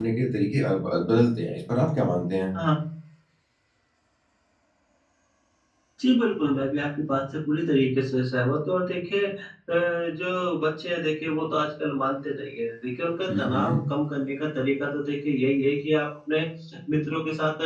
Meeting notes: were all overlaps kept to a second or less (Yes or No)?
Yes